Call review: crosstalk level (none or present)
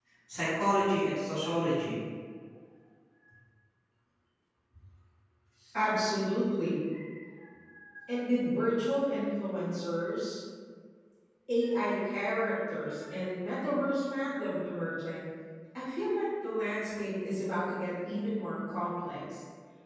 none